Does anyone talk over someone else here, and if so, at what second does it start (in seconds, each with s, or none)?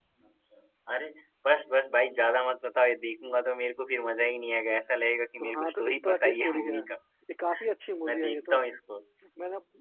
5.4 s